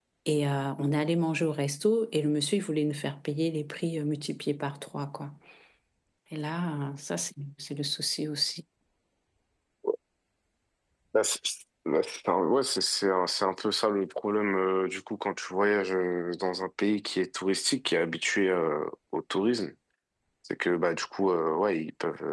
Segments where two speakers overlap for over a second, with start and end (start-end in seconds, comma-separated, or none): none